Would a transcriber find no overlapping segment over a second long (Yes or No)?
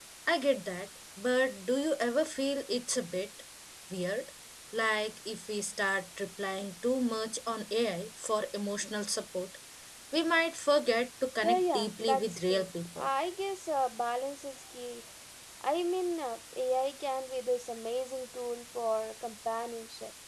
No